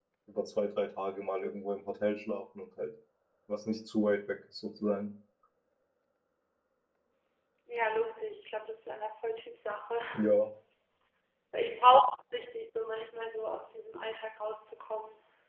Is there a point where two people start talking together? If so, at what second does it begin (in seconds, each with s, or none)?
none